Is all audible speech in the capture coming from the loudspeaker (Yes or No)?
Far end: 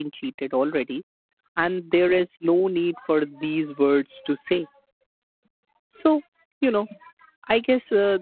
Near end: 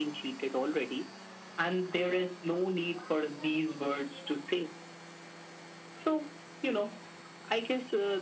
Yes